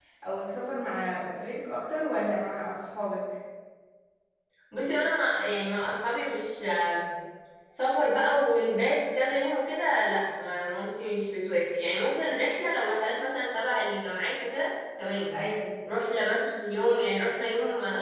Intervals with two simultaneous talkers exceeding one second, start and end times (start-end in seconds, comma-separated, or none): none